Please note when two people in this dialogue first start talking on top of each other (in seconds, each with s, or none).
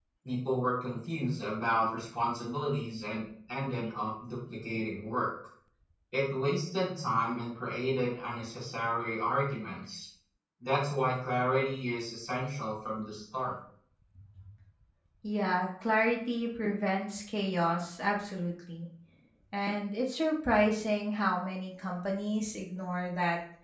none